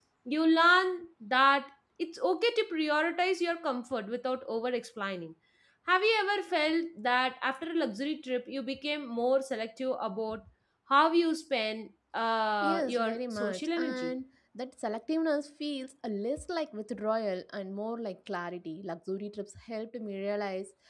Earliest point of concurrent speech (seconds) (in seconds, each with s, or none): 12.6 s